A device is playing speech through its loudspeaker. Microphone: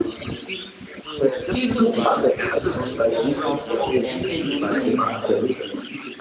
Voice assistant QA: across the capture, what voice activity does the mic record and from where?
both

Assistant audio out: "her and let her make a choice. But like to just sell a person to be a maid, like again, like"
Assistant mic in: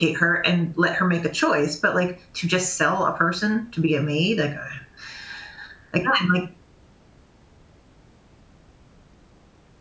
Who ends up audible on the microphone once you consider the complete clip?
echo only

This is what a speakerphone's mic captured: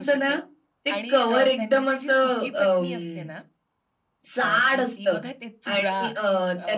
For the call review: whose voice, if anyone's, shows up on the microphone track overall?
both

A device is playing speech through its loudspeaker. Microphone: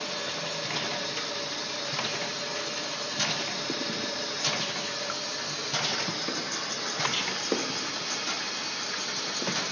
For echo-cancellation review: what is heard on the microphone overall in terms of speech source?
neither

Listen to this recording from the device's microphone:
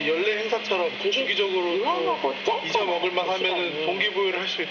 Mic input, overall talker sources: echo only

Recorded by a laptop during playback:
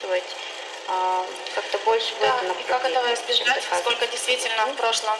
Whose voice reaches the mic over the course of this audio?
echo only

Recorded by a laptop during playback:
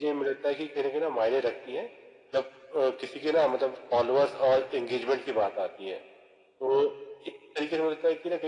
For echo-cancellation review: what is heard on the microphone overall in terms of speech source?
echo only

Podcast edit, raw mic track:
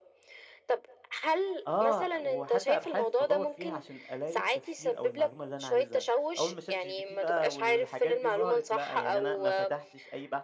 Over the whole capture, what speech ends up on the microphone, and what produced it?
both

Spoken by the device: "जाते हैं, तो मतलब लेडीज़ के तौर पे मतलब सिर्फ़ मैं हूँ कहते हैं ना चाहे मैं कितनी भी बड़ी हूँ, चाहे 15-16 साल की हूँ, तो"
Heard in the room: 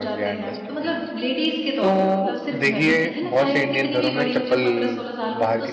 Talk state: both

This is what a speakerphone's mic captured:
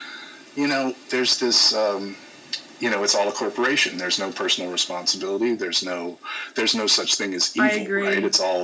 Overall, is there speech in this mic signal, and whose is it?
both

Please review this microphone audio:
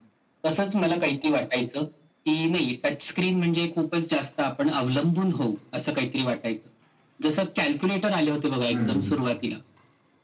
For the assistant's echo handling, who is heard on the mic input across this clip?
both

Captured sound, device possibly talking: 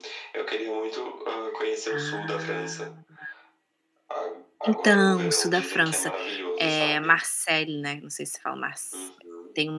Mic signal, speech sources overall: both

